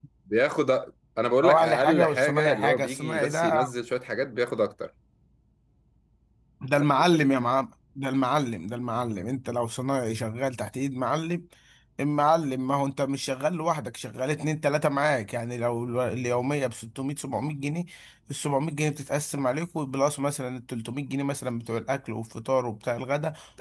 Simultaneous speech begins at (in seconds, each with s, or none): 1.4 s